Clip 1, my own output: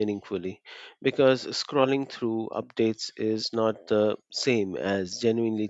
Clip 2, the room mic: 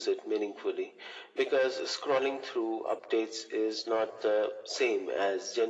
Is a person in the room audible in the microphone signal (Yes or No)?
No